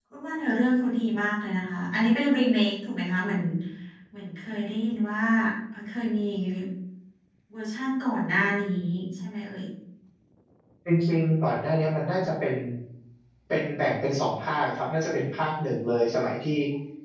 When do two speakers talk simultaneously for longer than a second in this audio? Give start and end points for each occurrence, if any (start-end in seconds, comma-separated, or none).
none